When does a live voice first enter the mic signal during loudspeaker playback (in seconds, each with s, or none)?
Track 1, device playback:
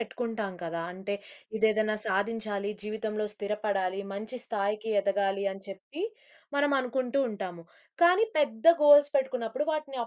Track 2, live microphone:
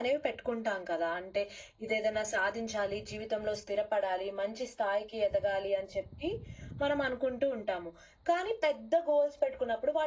none